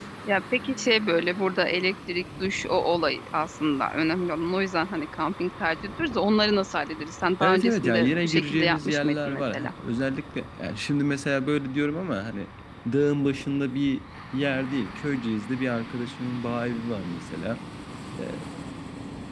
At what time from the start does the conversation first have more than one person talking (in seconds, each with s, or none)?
7.4 s